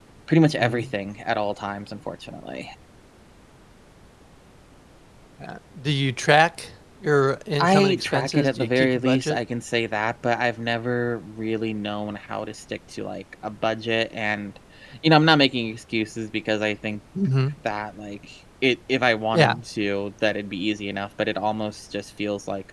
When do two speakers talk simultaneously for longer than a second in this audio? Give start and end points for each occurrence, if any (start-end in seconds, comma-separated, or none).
7.6-9.4